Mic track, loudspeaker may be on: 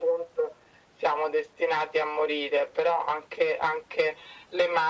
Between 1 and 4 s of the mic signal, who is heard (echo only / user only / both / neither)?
echo only